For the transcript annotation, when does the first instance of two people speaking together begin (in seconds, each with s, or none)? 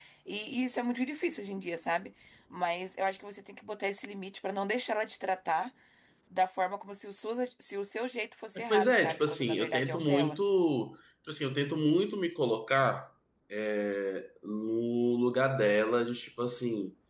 8.7 s